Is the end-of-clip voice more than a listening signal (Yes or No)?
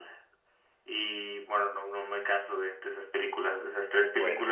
Yes